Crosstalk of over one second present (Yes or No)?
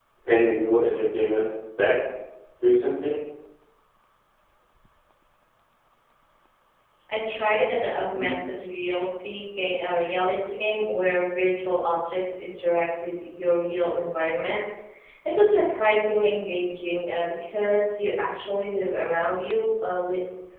No